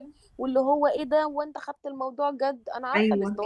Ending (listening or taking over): taking over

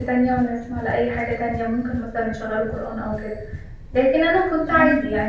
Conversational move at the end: listening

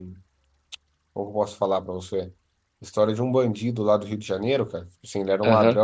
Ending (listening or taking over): listening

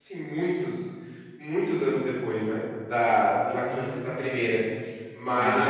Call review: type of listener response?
listening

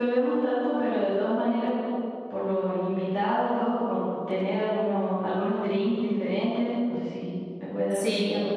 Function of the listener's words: taking over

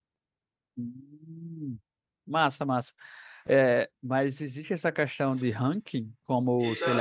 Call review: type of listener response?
taking over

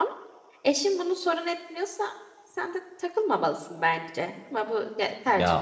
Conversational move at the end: taking over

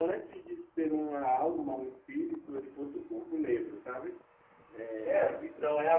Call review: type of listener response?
taking over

